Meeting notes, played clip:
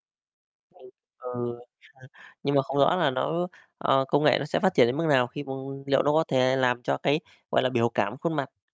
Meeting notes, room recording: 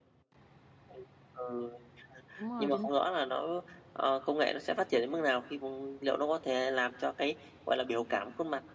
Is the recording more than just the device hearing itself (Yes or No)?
Yes